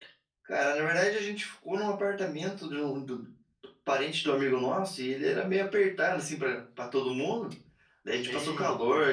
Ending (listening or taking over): listening